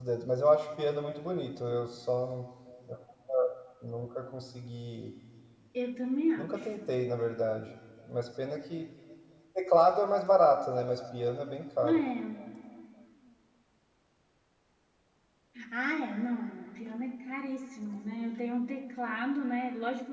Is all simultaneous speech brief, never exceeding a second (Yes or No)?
Yes